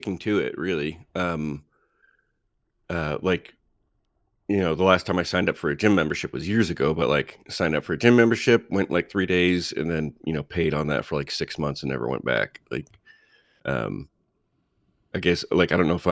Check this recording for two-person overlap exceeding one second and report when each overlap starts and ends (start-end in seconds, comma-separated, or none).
none